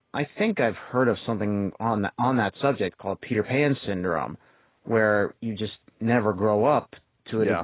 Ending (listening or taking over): listening